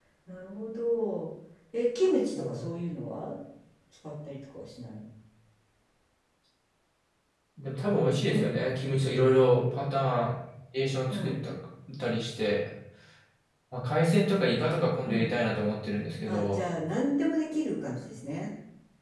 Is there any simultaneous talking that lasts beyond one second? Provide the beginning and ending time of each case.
none

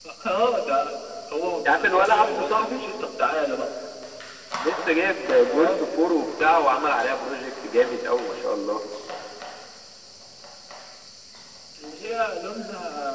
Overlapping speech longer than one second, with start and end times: 1.6-2.8

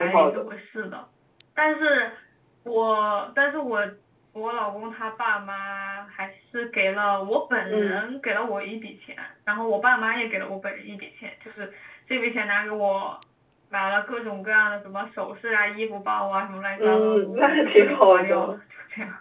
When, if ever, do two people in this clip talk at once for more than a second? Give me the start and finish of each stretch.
16.8-18.5

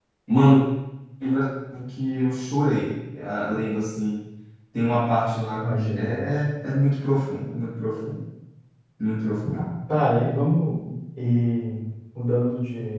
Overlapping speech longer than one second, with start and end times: none

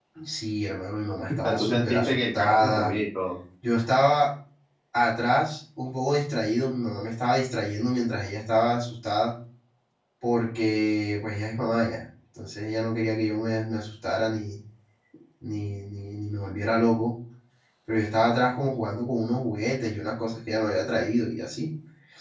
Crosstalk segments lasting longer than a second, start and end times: 1.4-3.0

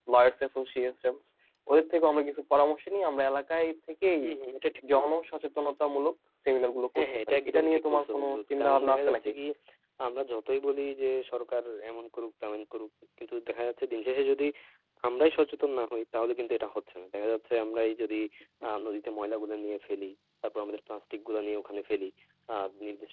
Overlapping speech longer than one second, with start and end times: 7.0-9.3

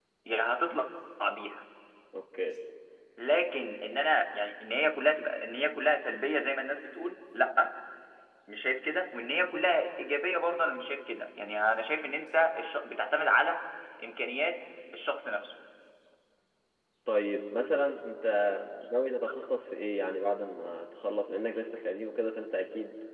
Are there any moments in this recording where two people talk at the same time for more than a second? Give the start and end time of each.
none

